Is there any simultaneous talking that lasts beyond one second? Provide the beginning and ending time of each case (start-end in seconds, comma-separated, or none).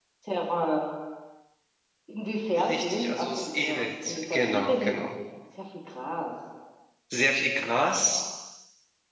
2.7-5.0